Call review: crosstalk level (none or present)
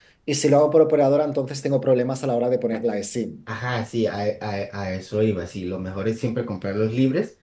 none